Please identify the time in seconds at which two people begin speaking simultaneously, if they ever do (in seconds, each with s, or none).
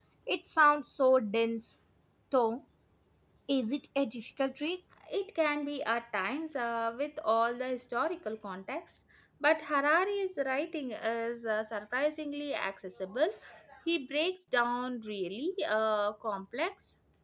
none